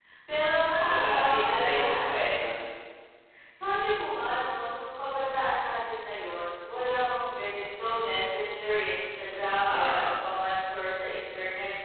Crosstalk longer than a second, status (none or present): present